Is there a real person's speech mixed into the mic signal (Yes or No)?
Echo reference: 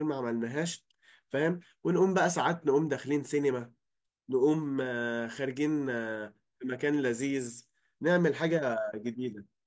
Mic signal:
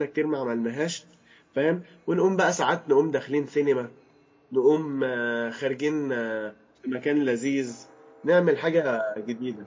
No